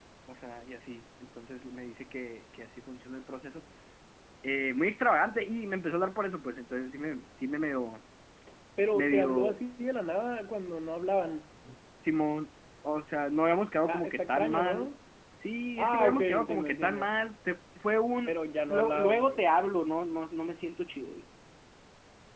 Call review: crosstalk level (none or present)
present